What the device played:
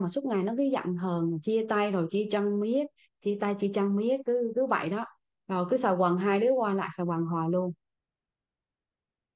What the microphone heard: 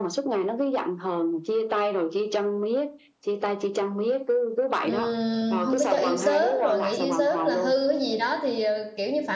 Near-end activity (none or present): present